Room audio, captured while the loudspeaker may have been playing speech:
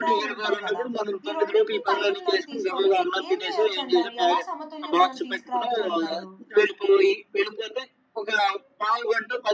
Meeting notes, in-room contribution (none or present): present